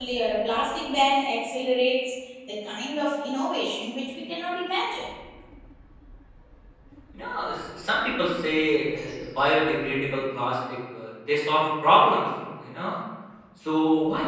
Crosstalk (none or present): none